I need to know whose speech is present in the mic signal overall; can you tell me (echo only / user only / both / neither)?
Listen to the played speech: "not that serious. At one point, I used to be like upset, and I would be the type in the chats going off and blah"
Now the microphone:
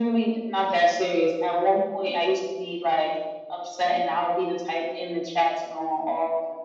echo only